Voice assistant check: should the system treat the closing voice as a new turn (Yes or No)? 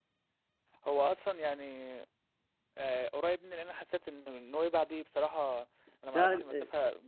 No